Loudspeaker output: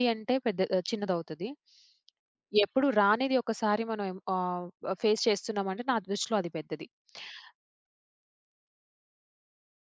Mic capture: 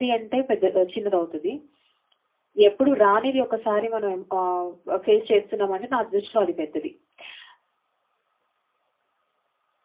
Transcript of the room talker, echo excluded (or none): none